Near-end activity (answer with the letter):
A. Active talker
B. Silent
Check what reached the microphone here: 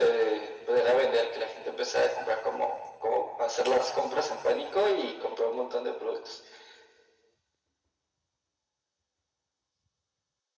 B